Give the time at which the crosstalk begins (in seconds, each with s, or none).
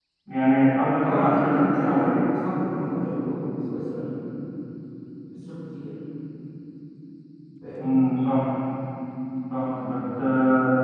1.0 s